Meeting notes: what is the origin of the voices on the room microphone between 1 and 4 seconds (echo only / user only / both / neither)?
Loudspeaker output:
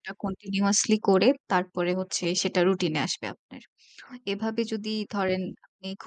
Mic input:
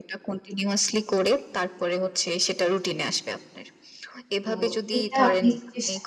echo only